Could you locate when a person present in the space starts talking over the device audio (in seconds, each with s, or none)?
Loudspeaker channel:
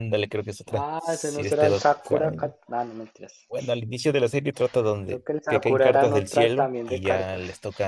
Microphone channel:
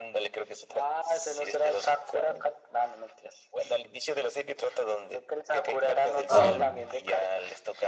6.3 s